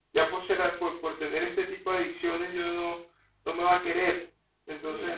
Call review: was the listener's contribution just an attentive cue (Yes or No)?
No